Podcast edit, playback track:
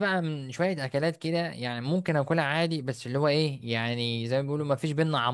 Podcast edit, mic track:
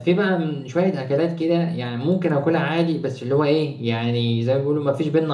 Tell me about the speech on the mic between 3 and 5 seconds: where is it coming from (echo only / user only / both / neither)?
echo only